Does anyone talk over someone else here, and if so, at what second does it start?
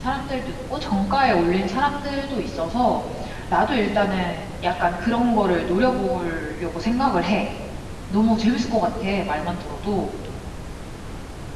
none

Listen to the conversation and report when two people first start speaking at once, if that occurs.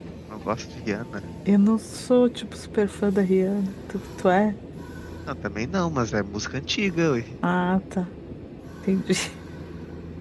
none

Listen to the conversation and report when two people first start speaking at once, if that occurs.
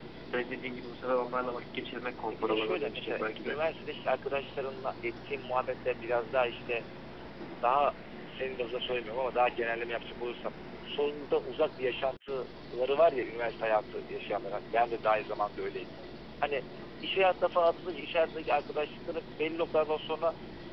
2 s

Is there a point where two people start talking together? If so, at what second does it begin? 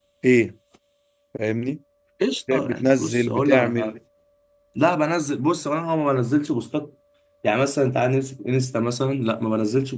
3 s

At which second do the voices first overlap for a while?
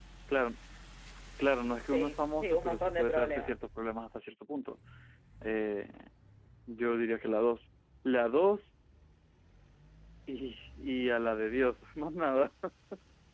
2 s

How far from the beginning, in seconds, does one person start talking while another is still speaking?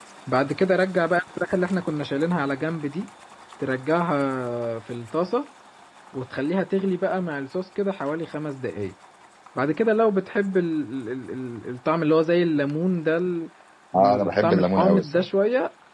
14 s

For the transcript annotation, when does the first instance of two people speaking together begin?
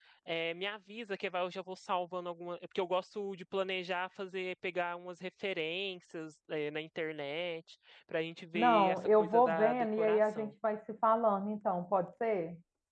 9 s

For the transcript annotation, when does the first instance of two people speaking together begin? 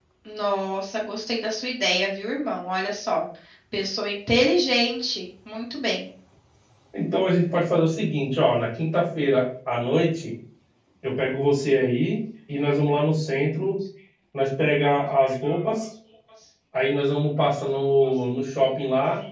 none

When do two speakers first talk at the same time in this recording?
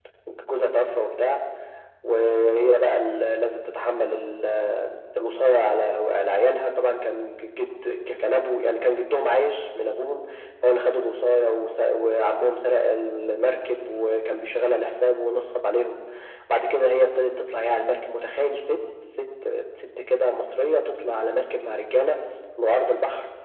none

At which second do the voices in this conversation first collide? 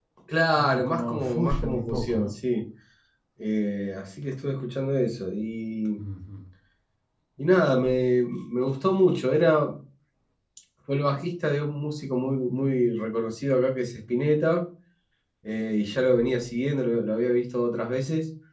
1 s

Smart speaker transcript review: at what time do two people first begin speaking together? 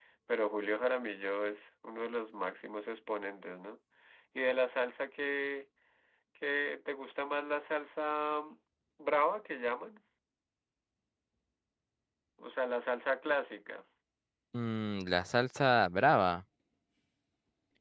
none

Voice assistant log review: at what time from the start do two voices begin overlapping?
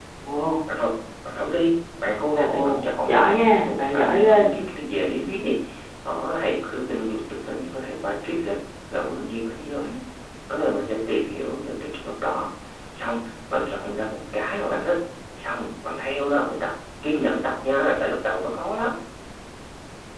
2 s

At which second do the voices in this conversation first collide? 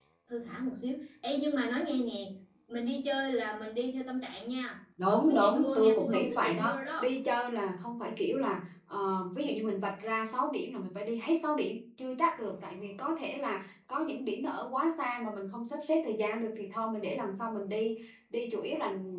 5 s

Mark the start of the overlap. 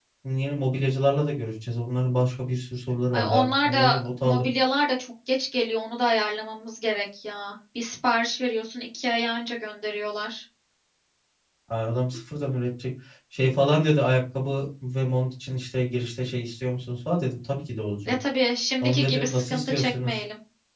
3 s

